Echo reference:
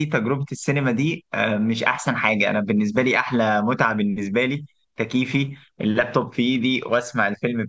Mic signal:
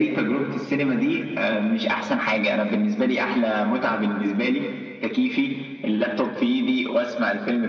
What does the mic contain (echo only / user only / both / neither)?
echo only